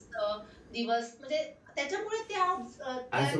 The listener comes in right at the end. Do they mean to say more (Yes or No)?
Yes